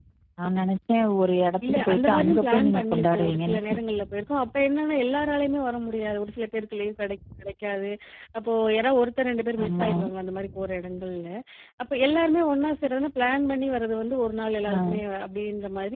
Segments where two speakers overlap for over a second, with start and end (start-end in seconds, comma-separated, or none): 1.7-3.6